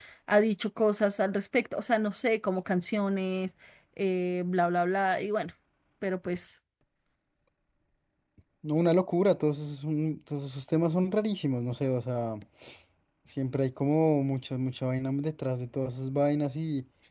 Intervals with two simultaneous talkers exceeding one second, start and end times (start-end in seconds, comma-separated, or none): none